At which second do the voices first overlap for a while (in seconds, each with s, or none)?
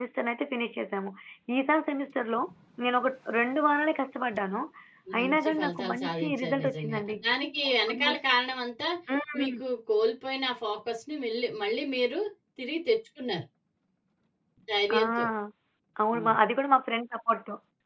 5.2 s